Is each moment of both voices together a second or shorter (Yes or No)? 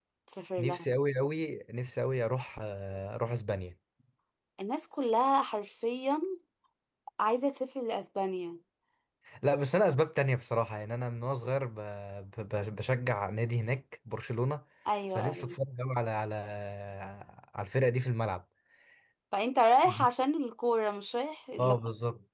Yes